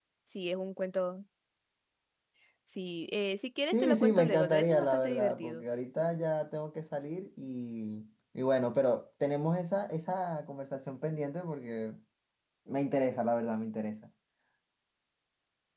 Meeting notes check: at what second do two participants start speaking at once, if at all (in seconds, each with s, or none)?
3.7 s